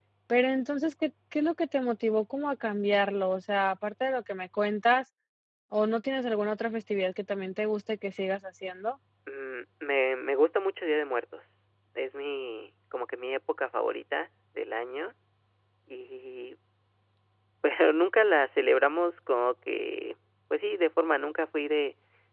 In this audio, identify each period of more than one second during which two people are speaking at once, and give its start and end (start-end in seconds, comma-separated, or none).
none